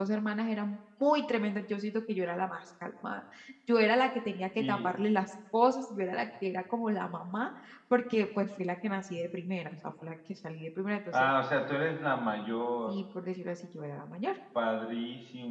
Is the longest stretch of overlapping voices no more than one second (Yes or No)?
Yes